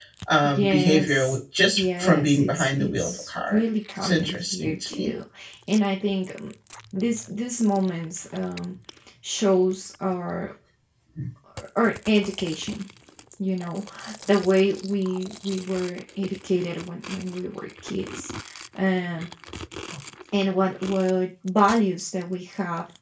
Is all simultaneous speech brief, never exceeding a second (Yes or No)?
No